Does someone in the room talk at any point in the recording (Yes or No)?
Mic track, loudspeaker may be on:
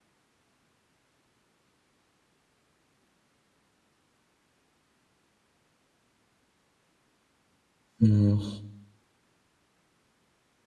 Yes